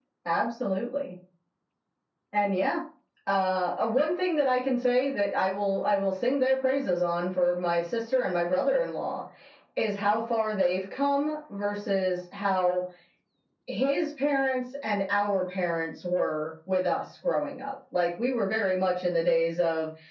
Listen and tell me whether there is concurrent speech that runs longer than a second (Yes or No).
No